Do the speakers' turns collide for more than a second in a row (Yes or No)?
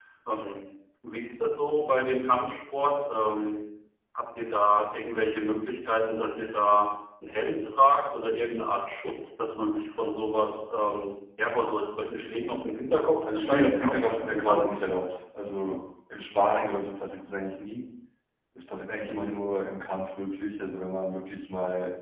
Yes